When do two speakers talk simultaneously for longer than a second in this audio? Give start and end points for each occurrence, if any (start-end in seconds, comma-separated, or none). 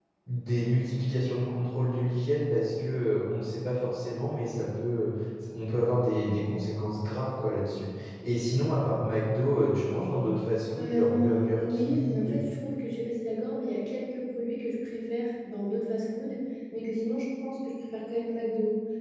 10.8-12.4